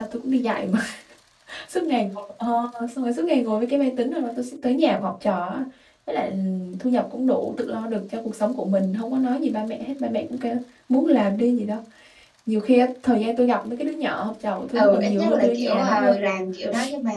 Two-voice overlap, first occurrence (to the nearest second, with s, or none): 15 s